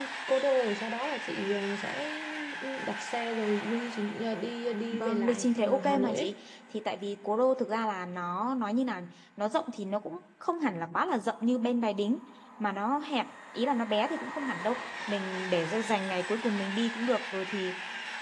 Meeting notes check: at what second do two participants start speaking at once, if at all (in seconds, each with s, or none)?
4.9 s